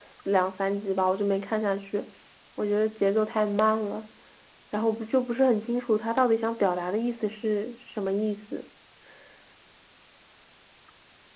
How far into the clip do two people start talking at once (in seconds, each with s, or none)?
none